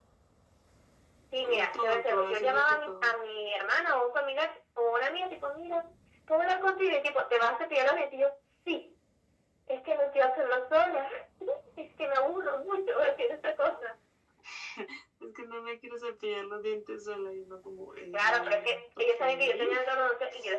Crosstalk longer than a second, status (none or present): present